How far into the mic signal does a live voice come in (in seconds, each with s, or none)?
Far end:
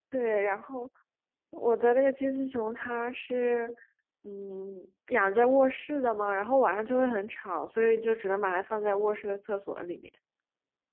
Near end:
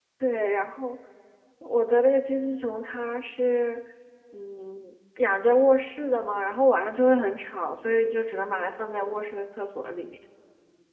none